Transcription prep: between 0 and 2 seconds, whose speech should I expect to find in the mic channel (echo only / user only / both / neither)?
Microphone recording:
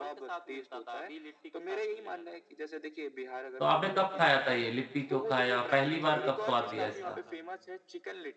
echo only